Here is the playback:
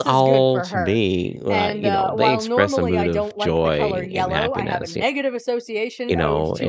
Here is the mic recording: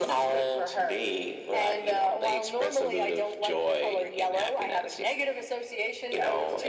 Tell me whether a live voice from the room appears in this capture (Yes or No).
No